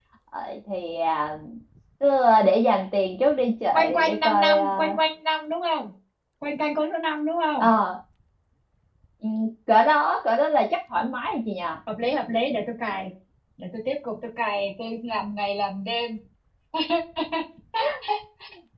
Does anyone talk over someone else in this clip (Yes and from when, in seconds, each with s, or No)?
Yes, from 3.7 s